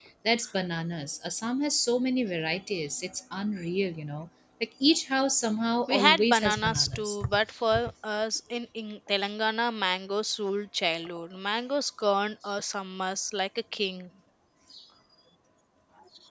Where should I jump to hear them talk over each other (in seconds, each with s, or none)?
5.9 s